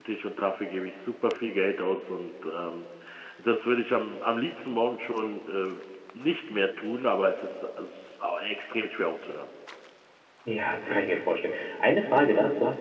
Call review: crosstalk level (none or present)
none